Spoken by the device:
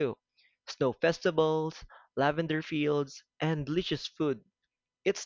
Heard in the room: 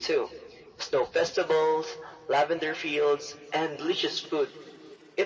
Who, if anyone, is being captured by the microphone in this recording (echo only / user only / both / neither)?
echo only